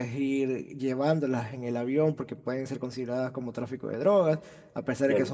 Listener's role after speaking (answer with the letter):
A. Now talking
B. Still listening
B